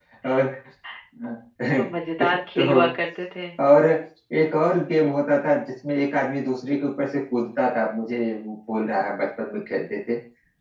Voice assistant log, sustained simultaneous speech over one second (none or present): none